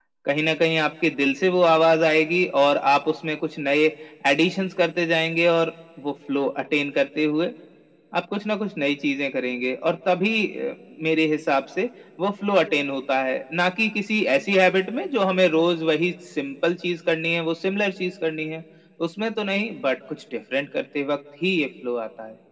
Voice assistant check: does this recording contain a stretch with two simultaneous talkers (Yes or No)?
No